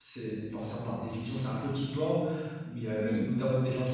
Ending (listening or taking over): listening